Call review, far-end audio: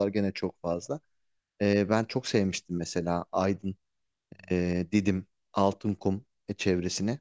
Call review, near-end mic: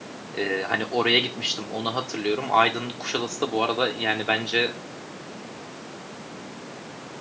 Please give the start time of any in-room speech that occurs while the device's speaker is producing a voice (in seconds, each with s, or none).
0.4 s